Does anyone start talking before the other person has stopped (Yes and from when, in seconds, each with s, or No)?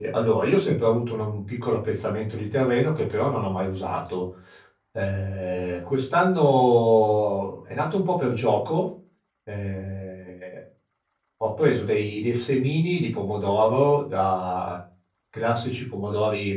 No